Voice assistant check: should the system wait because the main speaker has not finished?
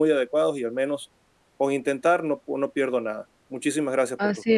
No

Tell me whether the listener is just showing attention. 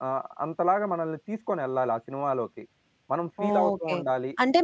No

